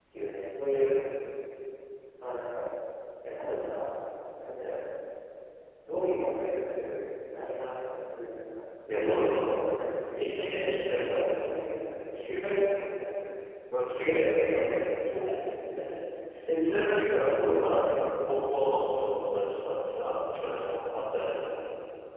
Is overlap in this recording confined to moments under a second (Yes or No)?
No